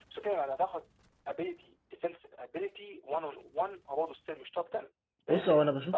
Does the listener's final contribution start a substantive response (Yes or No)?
Yes